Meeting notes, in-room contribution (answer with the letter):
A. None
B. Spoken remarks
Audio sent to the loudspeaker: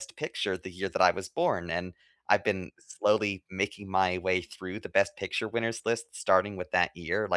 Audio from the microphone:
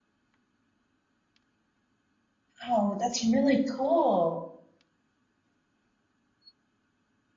B